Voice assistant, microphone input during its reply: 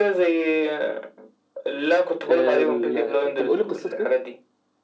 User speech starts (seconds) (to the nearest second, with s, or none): 2 s